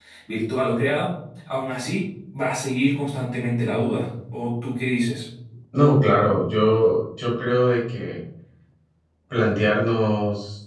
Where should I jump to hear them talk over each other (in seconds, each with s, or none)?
none